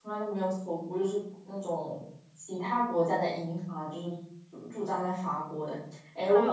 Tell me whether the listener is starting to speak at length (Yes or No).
Yes